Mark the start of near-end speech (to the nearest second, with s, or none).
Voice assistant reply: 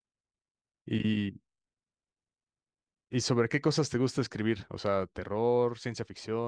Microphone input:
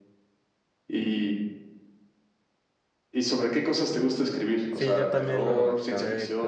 5 s